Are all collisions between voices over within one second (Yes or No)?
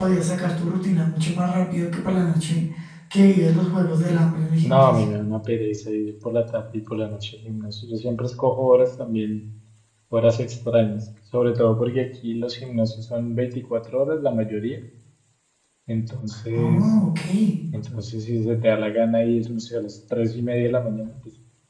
Yes